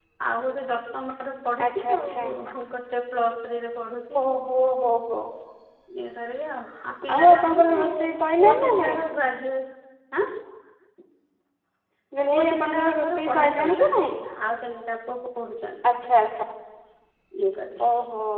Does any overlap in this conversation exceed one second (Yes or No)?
Yes